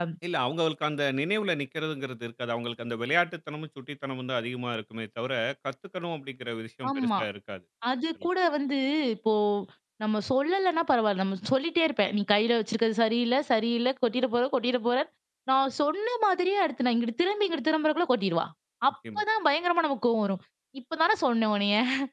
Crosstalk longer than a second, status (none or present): none